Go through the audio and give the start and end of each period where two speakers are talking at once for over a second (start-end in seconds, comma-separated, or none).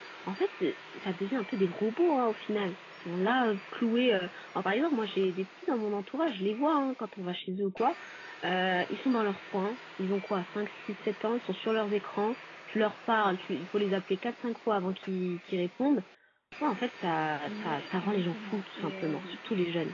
17.5-19.2